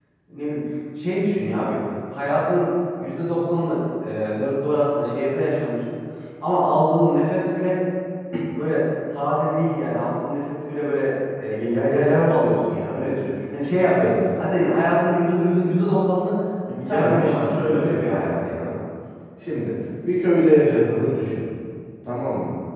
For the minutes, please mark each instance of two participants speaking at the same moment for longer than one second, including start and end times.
16.8-18.5

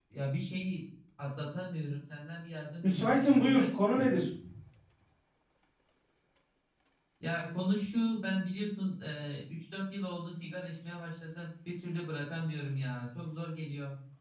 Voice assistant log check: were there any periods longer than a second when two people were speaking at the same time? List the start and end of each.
2.8-4.1

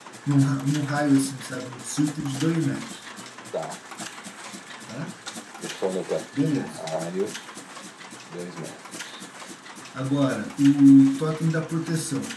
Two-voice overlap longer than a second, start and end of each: none

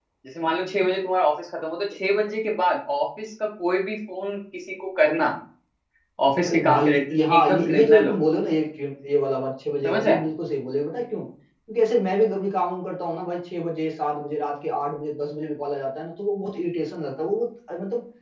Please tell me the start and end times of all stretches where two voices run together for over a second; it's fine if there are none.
6.5-8.1

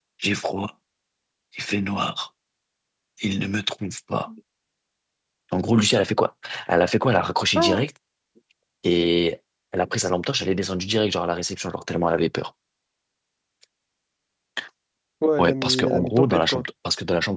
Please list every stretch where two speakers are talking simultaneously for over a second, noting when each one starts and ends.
15.4-16.7

